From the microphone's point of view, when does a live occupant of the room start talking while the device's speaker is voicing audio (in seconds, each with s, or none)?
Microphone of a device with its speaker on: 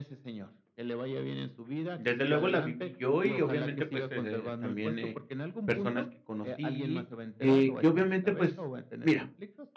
1.9 s